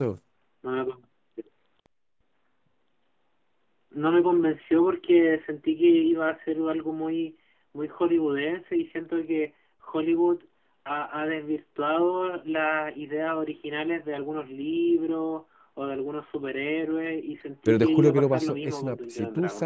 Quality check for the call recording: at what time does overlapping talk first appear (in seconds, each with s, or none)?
17.6 s